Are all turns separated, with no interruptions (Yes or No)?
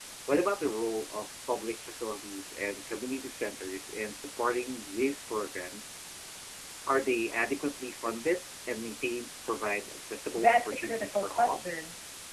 No